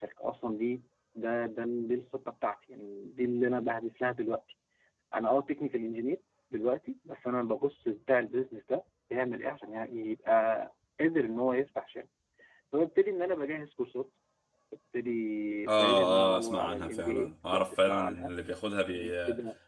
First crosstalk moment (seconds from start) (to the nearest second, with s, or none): 16 s